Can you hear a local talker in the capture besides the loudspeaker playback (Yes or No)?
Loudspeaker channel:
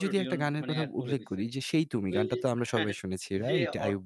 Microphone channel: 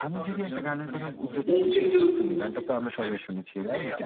Yes